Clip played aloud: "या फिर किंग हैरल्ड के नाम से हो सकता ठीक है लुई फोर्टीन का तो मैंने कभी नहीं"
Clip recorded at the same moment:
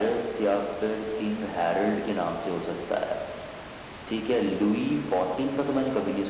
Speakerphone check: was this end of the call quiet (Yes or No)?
Yes